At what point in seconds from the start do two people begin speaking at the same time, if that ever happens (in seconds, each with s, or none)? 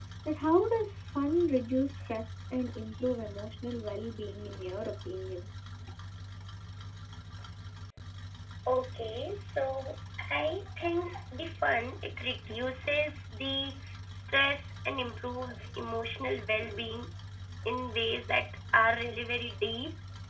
none